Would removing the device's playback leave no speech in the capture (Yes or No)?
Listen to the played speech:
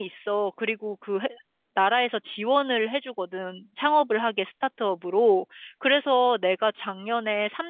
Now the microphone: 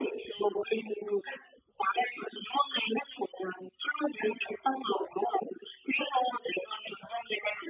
Yes